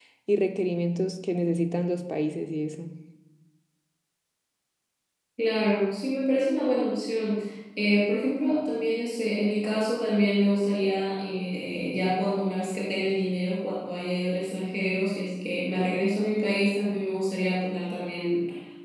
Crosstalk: none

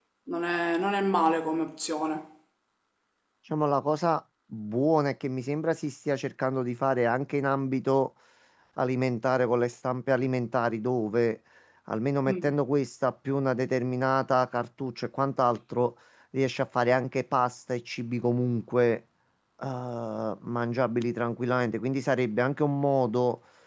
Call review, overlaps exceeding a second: none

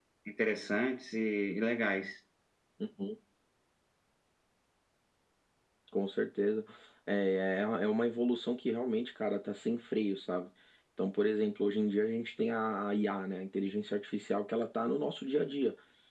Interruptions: none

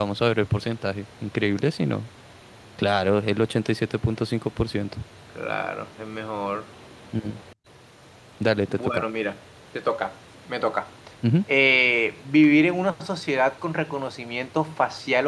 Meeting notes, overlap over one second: none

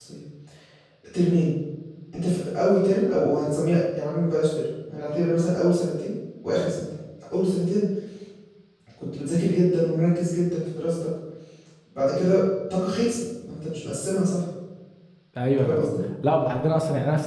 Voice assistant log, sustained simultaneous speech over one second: none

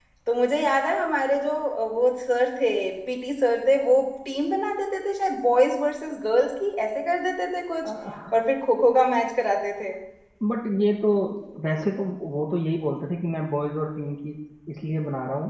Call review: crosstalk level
none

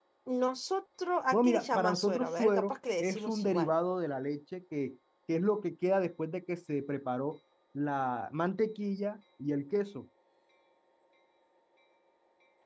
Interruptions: present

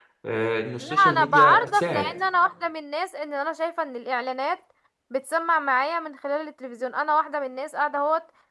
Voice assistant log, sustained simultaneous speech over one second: present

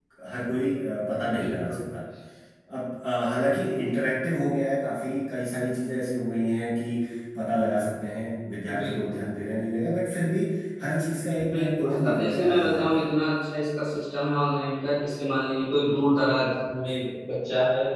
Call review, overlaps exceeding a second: present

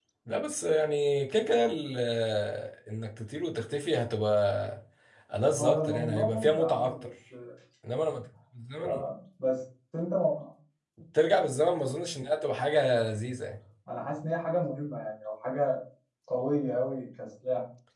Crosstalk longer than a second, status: present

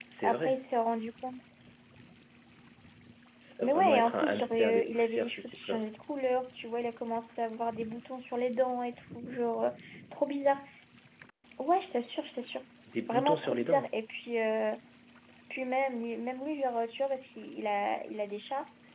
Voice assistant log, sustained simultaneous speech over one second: present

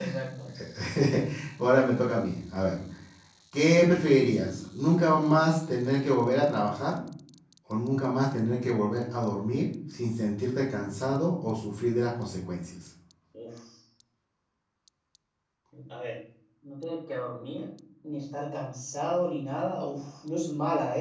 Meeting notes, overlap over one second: none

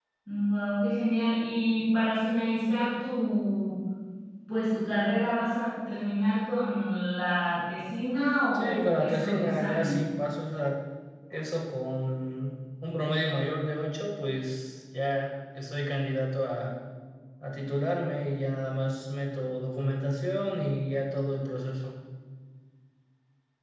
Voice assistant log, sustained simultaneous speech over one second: present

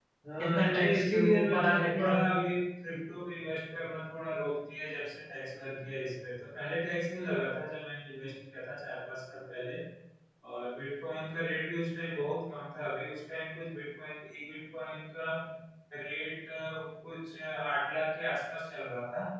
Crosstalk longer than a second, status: present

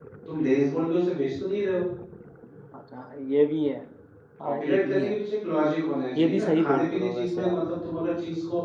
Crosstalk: present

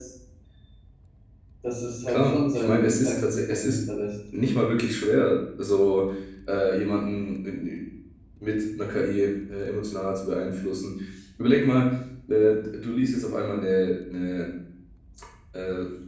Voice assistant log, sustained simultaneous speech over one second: present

